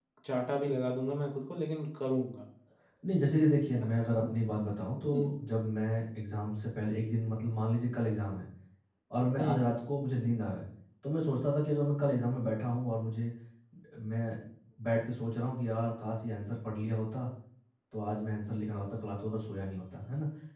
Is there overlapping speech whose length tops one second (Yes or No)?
No